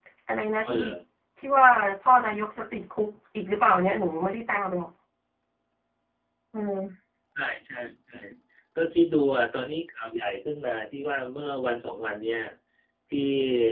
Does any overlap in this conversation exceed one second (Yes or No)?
No